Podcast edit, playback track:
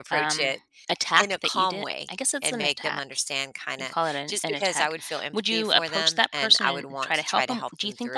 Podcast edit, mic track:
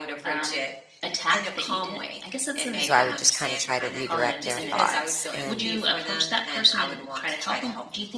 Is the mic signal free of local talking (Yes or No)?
No